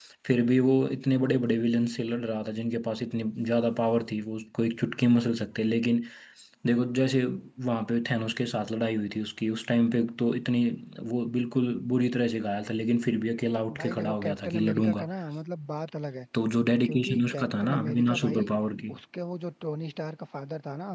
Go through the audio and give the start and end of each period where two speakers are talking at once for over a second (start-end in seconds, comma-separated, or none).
13.8-15.1, 16.8-18.5